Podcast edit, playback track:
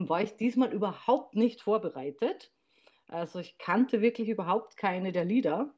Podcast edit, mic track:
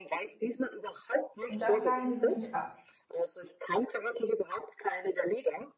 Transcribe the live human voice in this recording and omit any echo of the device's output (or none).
Und da fragen sich nämlich,